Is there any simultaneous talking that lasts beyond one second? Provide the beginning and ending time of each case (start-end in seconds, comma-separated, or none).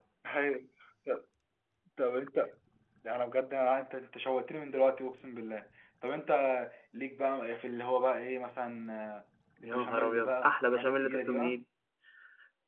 9.6-11.6